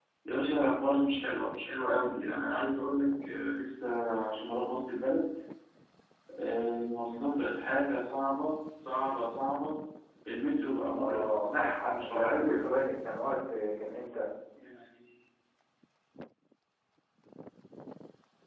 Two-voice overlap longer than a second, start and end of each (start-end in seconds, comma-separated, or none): 11.0-12.6